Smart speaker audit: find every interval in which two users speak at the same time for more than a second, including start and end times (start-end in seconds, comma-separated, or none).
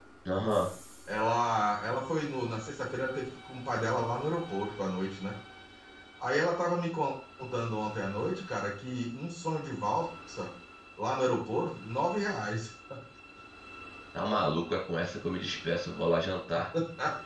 none